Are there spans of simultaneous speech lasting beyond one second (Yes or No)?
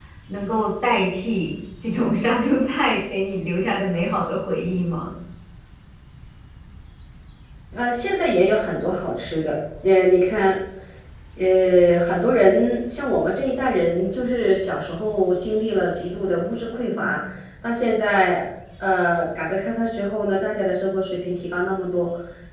No